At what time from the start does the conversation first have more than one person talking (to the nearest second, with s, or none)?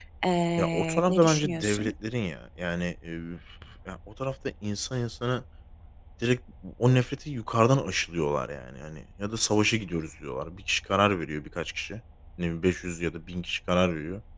1 s